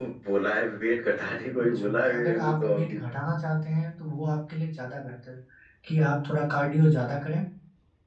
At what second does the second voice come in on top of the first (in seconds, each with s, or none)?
1.6 s